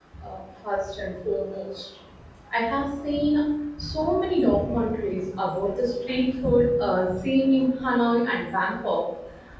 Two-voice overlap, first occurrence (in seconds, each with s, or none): none